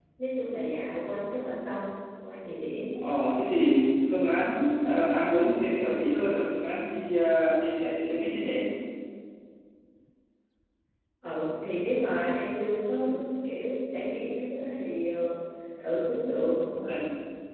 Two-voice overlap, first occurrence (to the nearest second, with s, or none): none